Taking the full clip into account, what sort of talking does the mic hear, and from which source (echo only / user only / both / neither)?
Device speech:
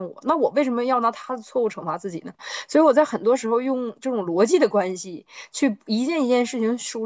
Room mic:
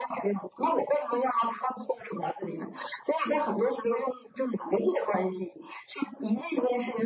echo only